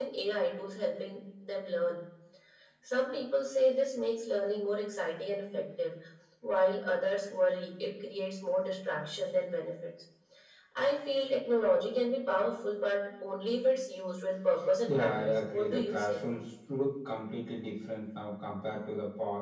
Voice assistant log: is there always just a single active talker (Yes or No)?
No